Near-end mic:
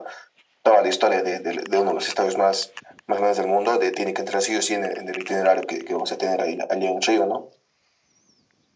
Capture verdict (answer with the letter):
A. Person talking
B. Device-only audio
B